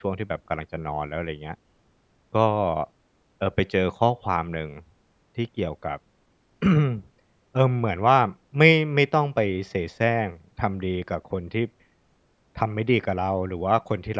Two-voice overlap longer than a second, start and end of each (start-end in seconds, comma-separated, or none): none